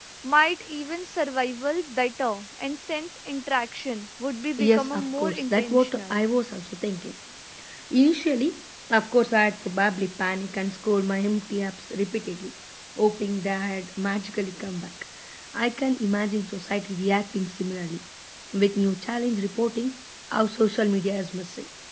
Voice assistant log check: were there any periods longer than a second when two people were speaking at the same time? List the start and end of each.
4.6-6.2

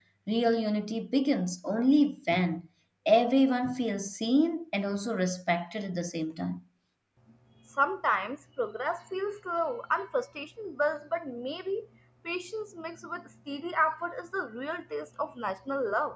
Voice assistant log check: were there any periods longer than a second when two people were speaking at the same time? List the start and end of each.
none

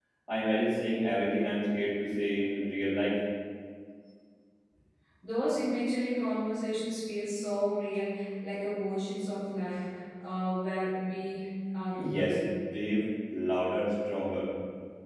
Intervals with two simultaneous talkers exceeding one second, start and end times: none

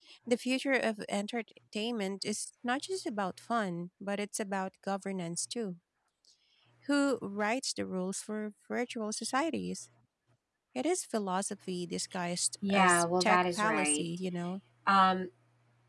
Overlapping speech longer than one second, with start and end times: 12.7-14.1

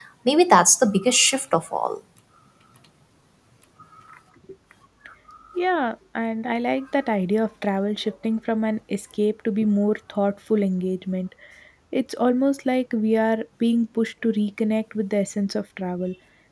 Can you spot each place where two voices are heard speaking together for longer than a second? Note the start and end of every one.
none

